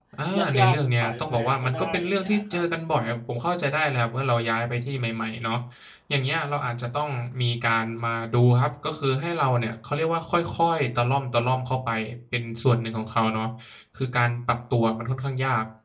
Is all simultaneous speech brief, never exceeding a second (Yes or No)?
No